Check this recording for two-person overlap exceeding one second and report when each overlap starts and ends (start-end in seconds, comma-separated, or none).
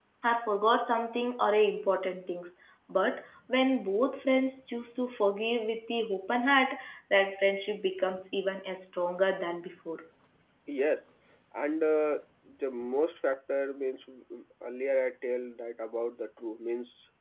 none